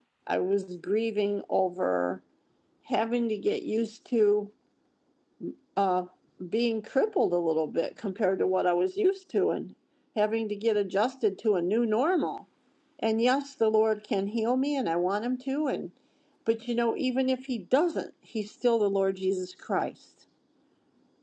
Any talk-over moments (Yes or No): No